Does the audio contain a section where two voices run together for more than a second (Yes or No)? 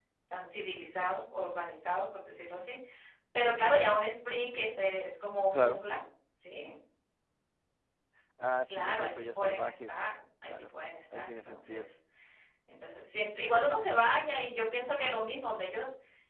Yes